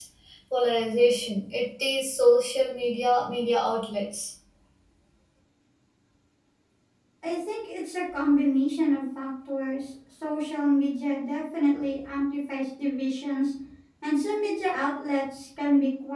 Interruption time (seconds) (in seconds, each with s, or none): none